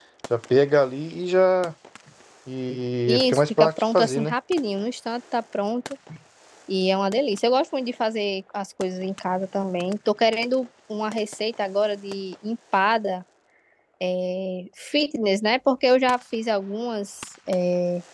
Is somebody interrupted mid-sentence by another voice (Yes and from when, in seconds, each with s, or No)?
Yes, from 3.1 s